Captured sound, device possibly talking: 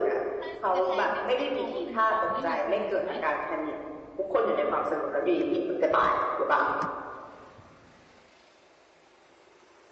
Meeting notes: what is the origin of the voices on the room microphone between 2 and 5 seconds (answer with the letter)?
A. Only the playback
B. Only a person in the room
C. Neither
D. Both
D